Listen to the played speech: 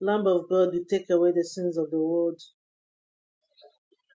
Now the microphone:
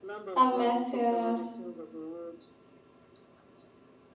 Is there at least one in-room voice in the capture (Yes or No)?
Yes